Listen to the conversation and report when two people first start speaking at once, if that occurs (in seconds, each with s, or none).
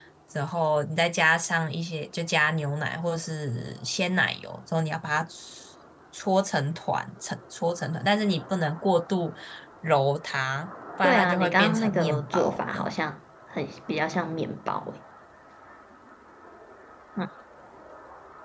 11.0 s